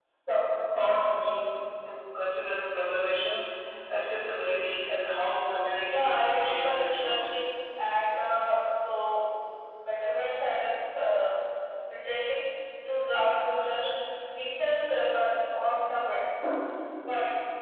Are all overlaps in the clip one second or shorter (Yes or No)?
No